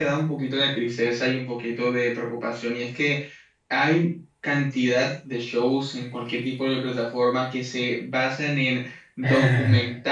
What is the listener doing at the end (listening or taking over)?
listening